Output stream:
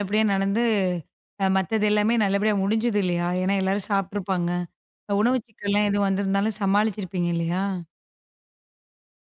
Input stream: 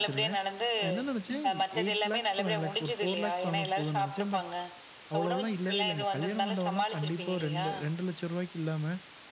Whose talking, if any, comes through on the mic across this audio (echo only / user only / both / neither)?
both